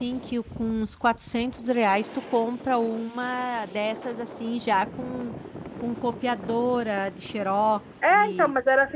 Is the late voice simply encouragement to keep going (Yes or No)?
No